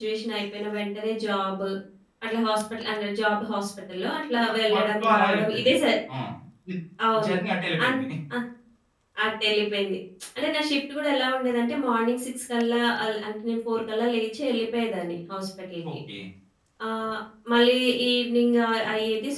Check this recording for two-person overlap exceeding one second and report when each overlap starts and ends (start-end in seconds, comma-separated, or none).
4.4-5.7